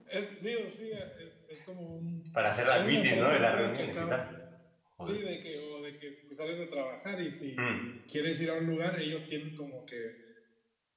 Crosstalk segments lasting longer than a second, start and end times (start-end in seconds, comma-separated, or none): 2.7-4.2